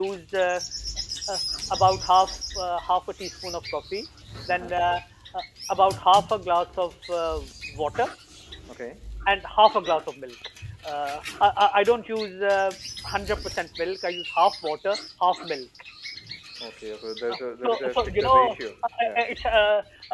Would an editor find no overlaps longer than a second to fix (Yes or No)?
No